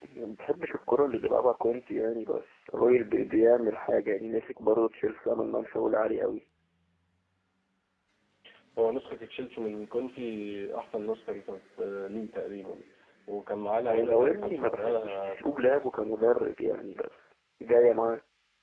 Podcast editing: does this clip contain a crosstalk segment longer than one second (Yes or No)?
Yes